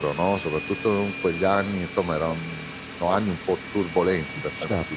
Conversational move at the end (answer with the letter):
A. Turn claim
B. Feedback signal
A